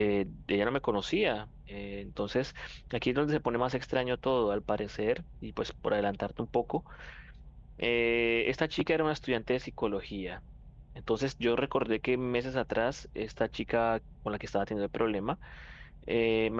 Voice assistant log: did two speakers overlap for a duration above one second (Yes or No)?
No